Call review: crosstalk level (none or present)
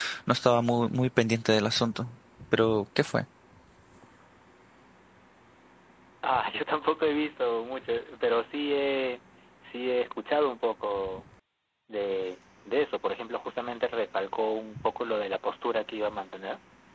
none